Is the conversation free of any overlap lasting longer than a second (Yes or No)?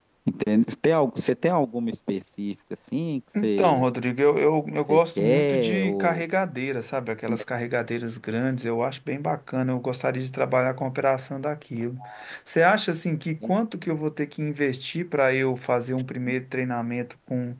No